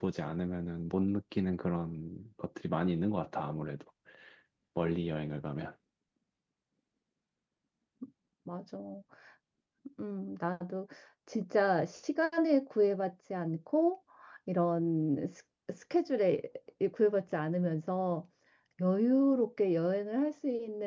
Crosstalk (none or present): none